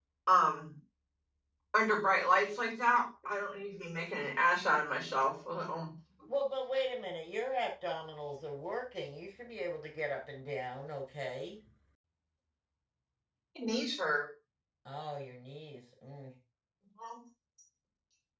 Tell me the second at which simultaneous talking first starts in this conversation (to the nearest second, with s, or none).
none